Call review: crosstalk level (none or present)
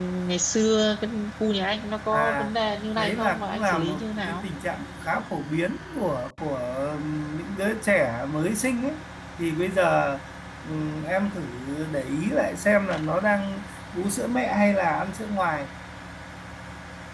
present